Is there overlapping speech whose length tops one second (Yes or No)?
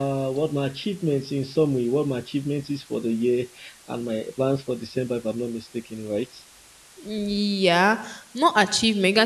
No